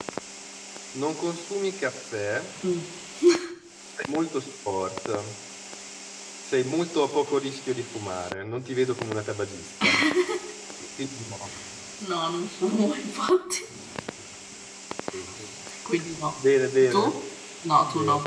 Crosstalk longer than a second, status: none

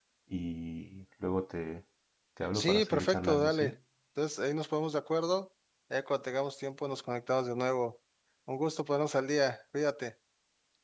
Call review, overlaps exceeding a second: present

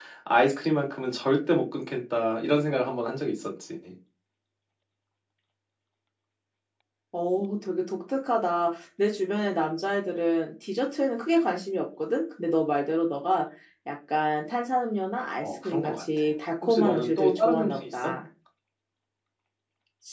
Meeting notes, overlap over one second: present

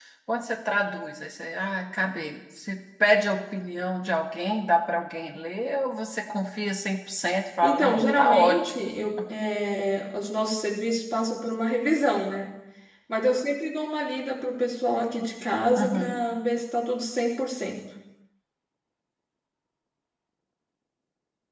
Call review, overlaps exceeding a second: present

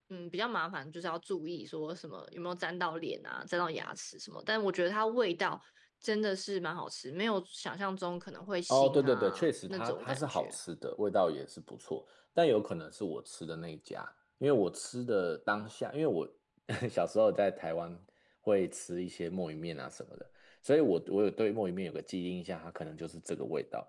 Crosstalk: present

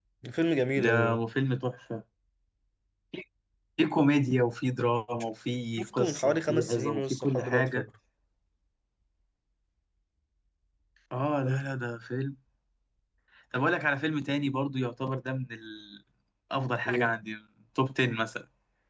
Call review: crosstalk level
present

